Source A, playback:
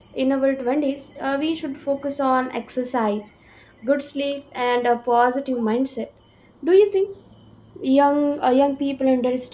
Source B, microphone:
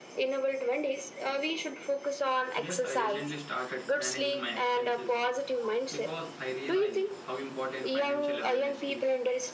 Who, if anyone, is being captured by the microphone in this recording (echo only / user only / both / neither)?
both